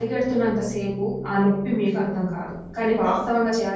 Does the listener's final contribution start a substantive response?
No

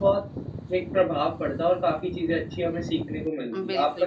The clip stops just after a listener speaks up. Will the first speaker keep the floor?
No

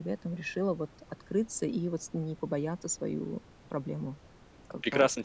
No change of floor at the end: No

